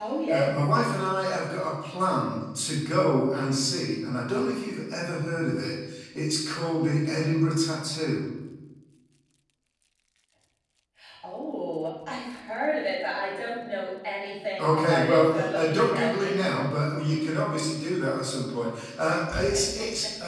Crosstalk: present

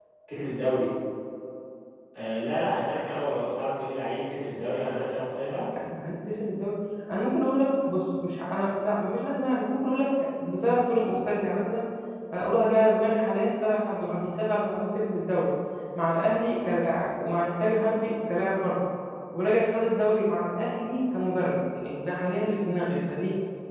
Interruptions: none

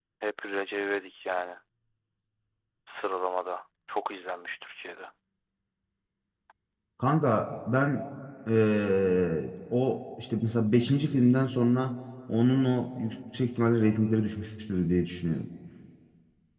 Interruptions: none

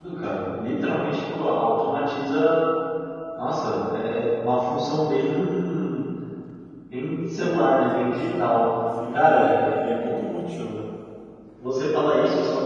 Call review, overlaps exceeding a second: present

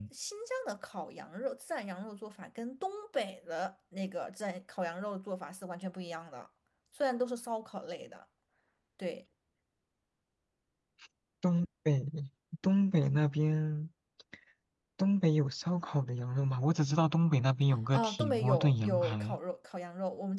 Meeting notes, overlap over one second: present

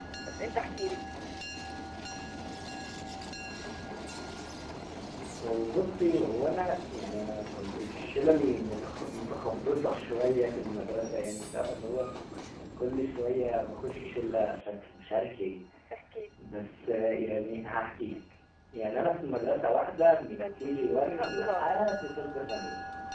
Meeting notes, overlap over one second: present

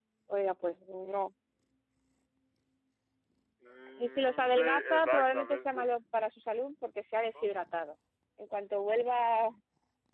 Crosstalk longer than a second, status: present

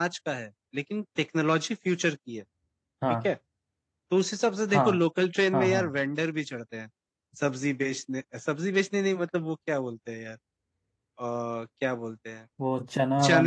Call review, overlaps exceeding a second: none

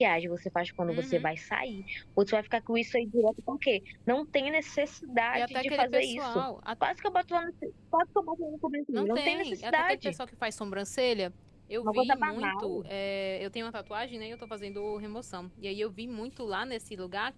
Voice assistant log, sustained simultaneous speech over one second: present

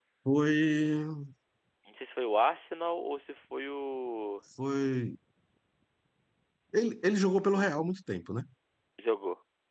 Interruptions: none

